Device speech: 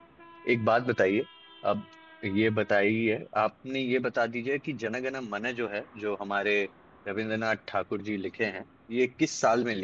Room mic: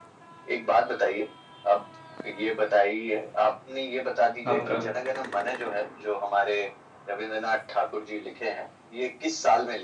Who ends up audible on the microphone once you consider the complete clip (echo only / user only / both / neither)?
both